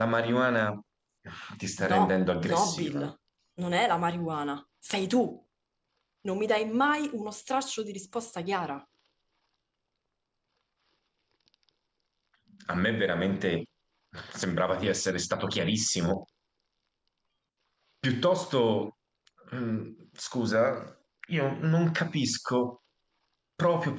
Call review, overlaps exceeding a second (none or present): present